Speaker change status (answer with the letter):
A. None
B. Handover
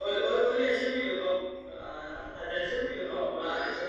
B